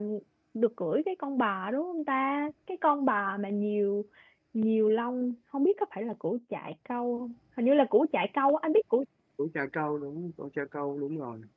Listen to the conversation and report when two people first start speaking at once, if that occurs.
none

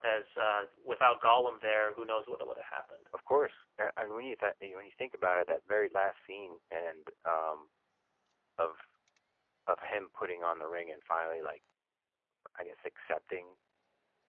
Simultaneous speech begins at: none

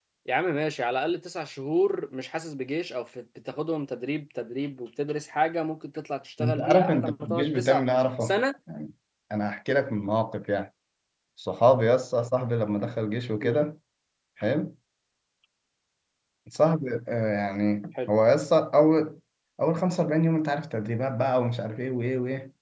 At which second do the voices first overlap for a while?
6.4 s

